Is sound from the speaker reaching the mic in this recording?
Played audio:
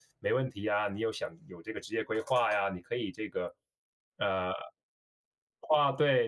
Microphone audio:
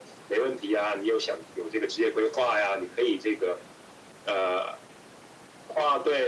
Yes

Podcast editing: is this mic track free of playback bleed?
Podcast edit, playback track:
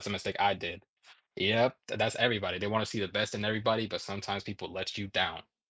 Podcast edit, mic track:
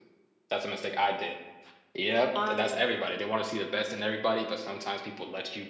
No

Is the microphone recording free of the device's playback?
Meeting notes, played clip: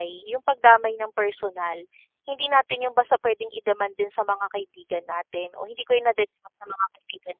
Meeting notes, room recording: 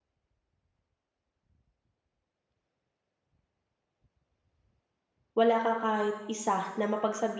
Yes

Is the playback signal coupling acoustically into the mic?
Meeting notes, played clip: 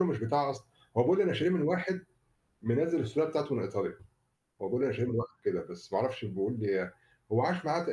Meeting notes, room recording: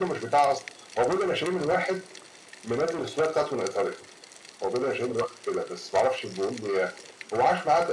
Yes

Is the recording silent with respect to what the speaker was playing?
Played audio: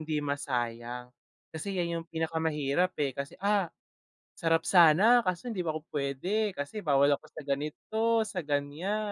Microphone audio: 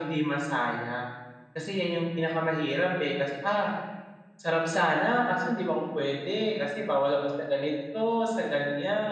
No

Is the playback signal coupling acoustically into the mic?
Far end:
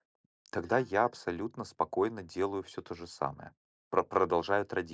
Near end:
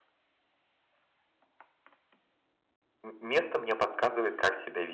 No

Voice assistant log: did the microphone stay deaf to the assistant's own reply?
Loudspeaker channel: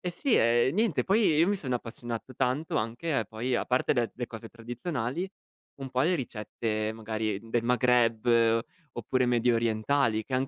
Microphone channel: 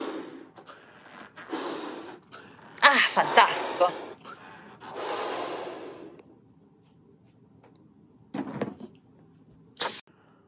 Yes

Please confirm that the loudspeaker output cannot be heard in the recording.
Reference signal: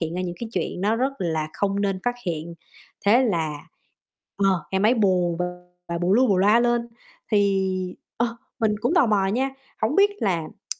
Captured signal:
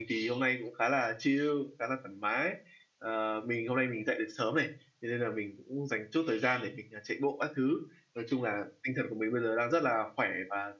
Yes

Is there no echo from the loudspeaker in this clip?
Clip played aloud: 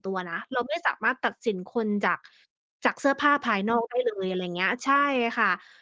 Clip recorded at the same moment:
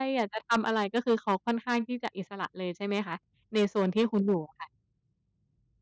Yes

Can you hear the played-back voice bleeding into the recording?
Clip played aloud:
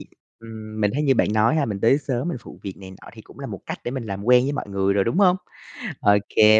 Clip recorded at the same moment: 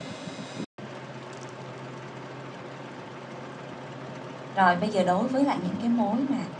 No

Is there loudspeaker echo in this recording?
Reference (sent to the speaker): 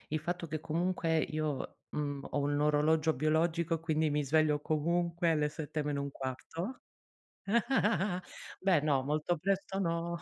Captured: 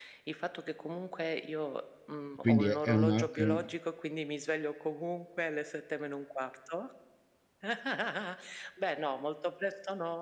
Yes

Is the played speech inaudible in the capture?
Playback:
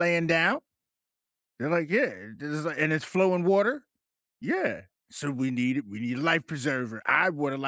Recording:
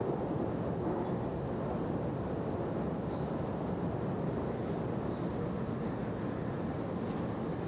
Yes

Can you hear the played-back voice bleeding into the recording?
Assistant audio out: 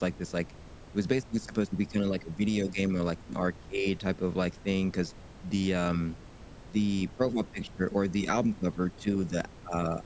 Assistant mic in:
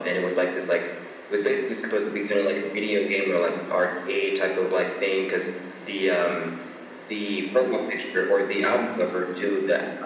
Yes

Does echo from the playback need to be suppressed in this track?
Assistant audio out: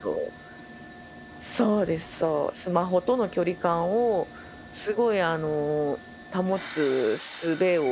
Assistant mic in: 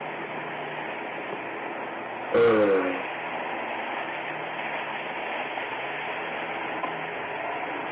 No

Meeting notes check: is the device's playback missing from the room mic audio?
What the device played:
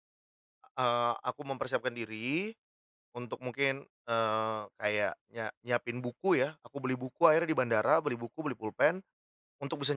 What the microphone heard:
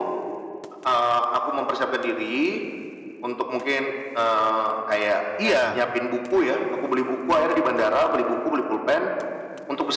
No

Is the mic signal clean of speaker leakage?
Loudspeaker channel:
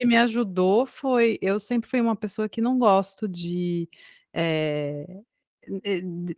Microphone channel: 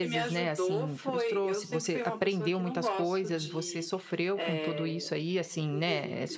No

